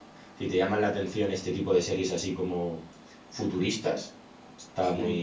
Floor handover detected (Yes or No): No